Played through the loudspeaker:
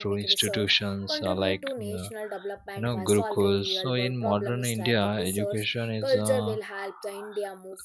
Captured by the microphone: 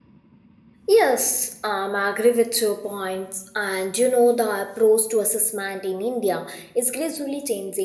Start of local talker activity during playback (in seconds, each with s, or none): 0.9 s